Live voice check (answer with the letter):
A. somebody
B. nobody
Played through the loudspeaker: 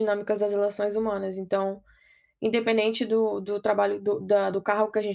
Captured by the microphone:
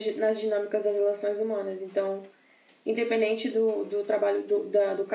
B